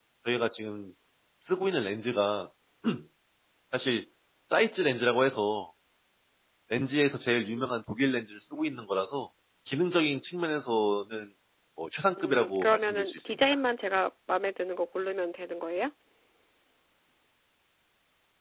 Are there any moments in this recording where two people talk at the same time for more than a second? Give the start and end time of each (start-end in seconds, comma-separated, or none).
12.2-13.6